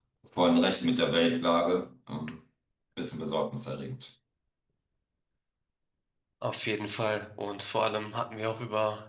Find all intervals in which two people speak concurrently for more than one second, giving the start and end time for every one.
none

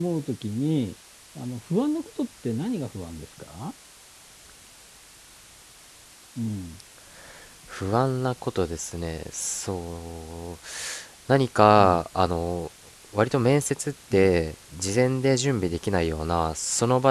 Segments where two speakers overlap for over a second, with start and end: none

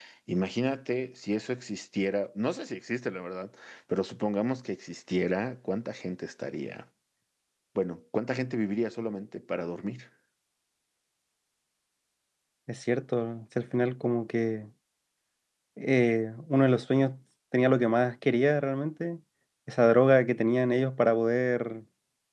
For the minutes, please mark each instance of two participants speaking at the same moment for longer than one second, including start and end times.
none

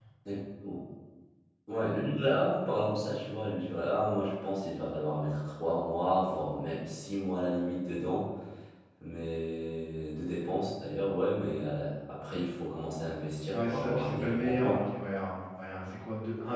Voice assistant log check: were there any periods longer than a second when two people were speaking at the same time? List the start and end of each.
13.5-14.8

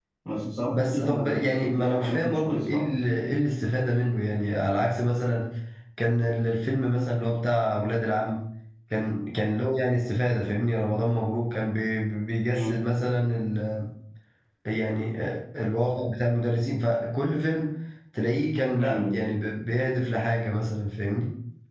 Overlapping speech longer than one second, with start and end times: 0.7-2.9

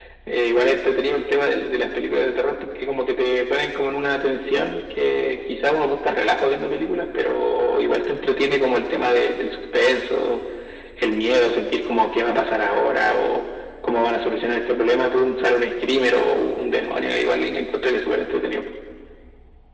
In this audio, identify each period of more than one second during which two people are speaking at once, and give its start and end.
none

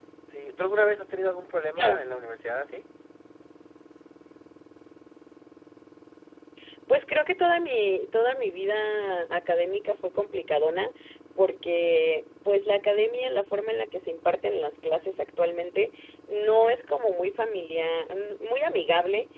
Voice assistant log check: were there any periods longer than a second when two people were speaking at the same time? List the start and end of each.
none

